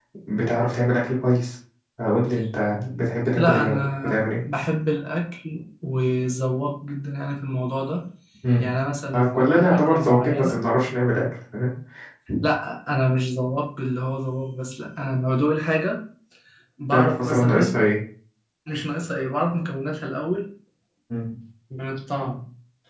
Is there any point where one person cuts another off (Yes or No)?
Yes